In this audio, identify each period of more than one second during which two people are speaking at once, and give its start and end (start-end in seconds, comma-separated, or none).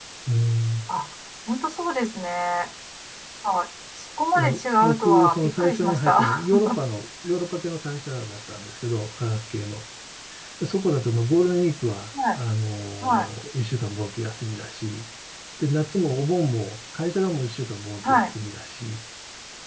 4.3-6.5